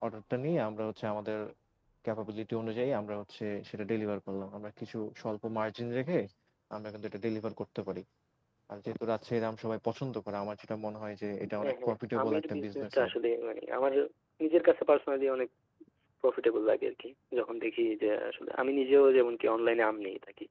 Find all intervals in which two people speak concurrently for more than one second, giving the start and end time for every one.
11.6-13.1

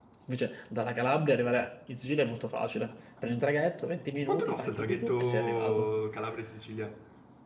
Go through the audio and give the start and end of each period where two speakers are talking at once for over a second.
4.3-5.9

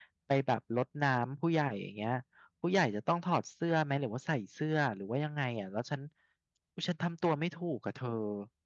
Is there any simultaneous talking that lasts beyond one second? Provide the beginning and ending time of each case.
none

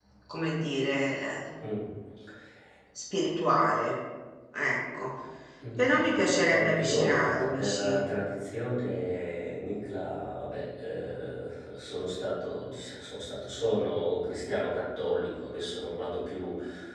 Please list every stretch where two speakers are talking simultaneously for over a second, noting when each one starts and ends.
6.5-8.0

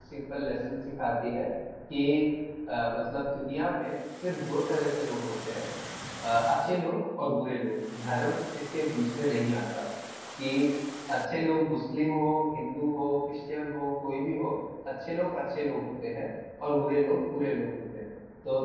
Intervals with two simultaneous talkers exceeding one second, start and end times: none

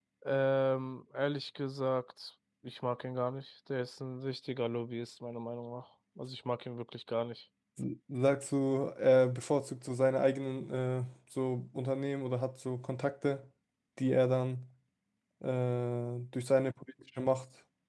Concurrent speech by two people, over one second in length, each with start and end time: none

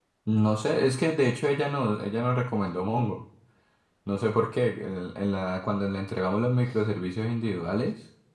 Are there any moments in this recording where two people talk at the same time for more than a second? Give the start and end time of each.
none

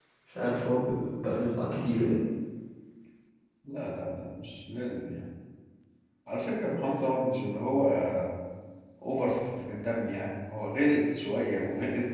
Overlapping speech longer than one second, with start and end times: none

